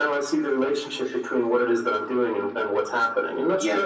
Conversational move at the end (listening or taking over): taking over